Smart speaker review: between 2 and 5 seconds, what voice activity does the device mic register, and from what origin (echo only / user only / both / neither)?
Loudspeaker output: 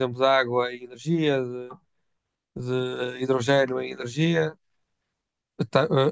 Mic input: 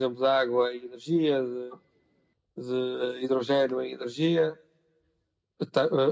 echo only